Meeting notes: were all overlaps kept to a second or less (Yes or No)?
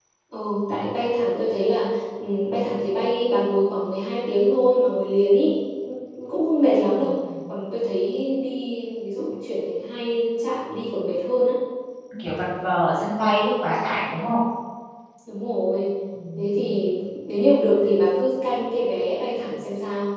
Yes